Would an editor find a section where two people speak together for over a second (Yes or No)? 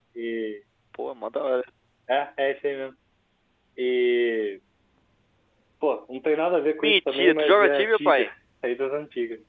Yes